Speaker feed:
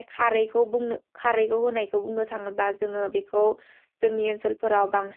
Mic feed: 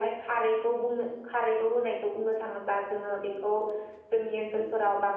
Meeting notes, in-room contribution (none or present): none